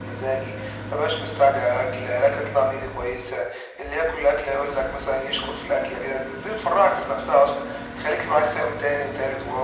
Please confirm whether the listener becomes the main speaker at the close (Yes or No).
No